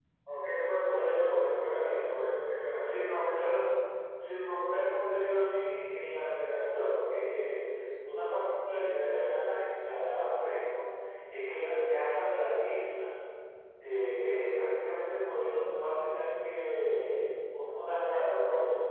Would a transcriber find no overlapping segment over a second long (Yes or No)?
No